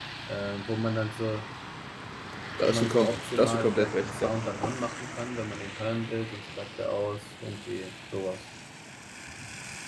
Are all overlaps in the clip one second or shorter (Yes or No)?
No